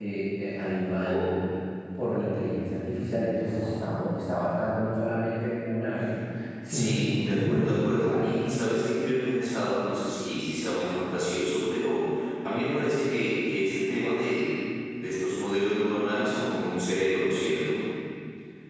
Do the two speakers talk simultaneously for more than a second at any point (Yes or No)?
Yes